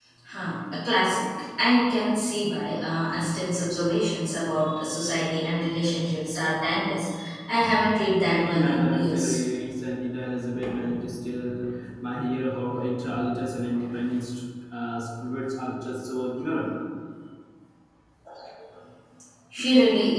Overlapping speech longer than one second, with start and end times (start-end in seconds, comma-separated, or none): 8.1-9.4